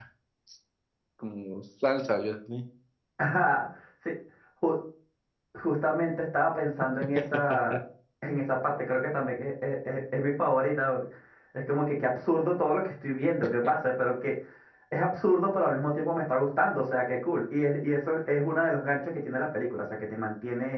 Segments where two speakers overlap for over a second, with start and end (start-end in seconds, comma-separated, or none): none